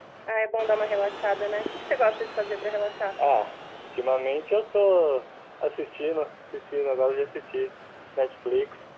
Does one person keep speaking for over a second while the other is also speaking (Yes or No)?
No